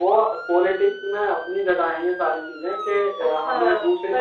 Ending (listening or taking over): taking over